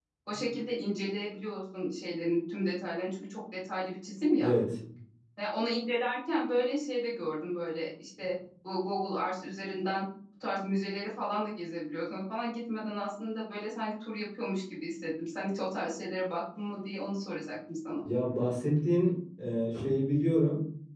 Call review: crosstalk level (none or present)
none